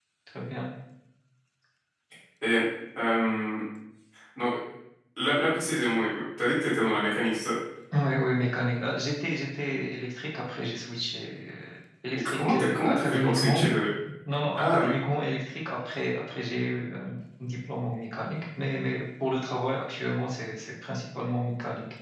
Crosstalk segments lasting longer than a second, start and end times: 12.2-13.7

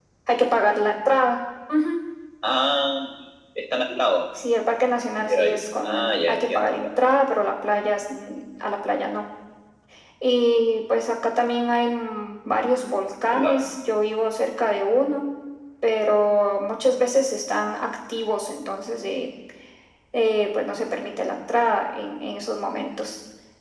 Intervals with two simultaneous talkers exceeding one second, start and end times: 5.2-6.9

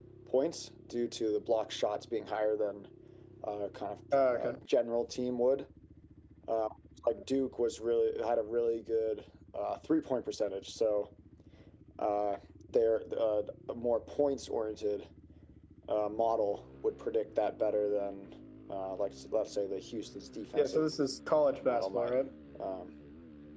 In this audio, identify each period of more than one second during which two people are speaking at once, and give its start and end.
none

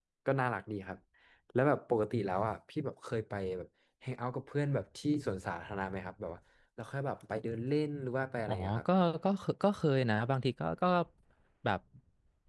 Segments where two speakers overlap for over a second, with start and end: none

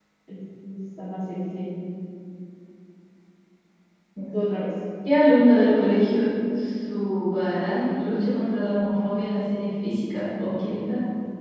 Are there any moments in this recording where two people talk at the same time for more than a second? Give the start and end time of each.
none

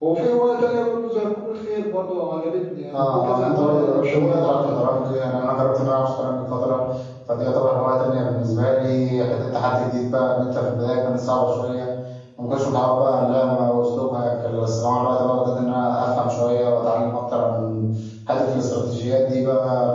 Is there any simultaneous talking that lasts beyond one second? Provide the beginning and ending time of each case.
2.9-4.7

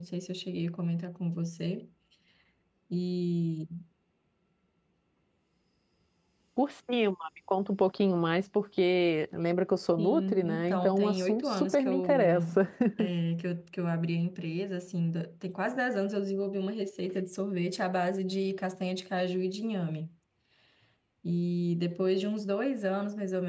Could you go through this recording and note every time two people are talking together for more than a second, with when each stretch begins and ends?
10.0-12.3

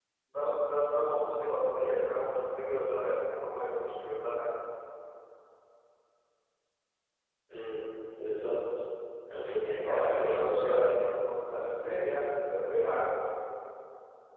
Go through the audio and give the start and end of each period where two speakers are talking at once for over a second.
9.8-11.1

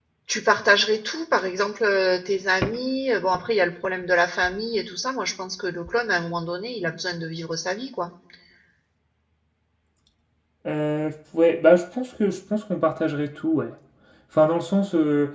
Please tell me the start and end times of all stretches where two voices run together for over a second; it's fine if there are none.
none

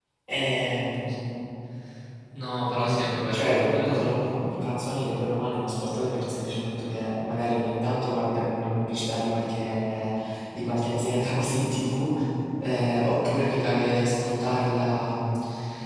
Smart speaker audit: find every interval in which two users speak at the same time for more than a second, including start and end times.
2.8-4.1

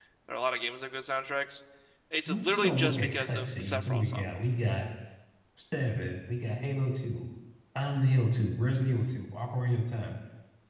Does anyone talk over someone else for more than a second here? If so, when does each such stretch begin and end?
2.3-4.2

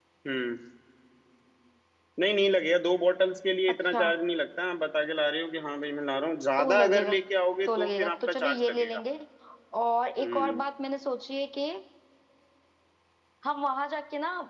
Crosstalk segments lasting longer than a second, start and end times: 7.7-9.0

